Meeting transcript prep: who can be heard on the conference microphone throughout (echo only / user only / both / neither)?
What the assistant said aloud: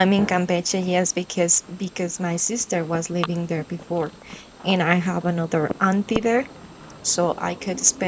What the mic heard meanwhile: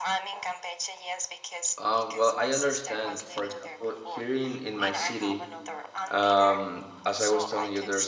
both